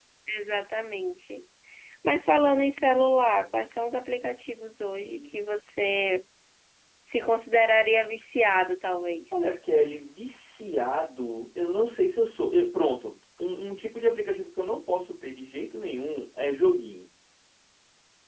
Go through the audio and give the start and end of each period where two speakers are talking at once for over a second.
none

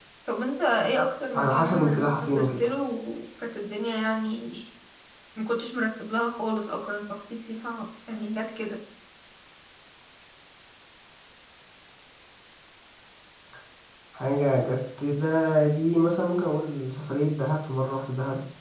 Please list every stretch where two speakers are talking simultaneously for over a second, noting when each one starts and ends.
1.3-2.7

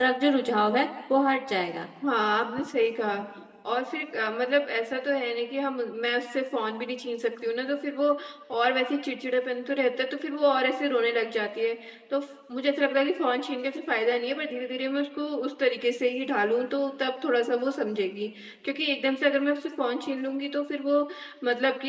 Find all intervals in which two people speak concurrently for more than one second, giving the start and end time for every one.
none

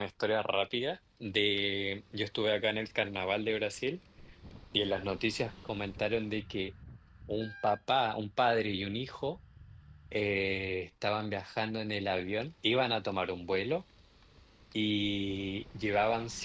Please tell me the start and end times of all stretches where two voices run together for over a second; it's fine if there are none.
none

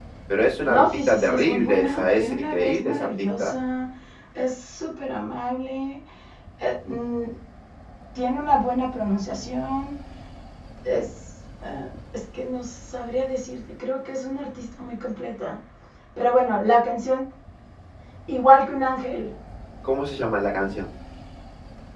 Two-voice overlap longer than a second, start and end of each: 0.7-3.5

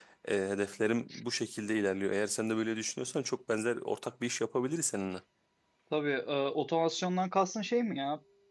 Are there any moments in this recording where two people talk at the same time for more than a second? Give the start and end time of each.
none

